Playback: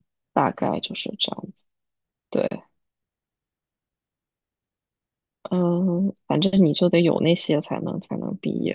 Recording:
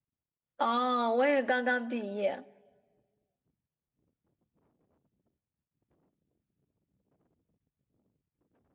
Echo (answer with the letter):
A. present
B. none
B